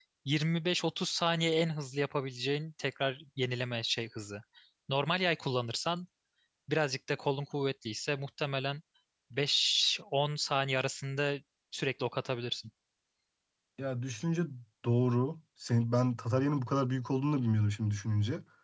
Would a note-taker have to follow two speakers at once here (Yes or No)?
No